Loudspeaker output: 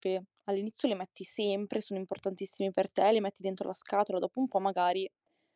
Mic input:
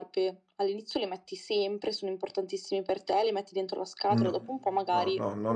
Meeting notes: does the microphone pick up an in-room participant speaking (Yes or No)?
Yes